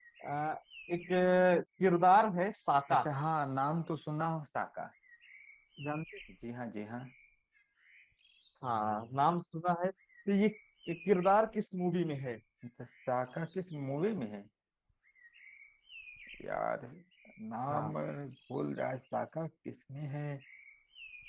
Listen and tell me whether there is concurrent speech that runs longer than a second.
No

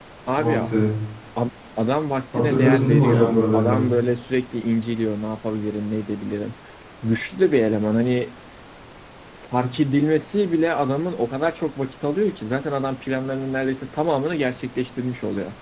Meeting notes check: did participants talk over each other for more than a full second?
Yes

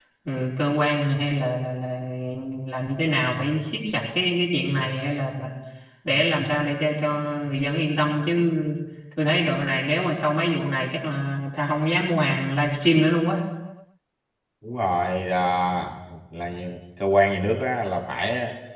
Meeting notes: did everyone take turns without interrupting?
Yes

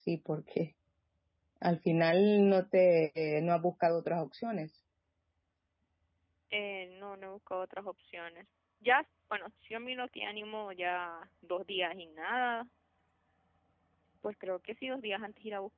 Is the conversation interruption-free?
Yes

